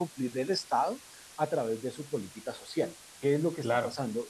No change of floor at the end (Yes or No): Yes